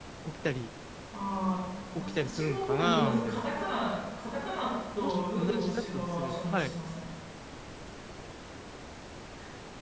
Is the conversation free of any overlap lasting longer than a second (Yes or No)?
No